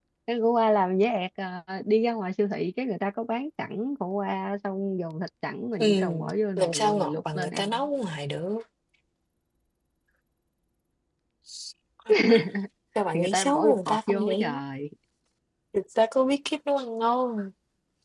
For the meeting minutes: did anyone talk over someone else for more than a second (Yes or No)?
Yes